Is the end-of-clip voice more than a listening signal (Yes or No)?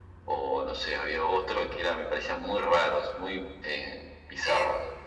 Yes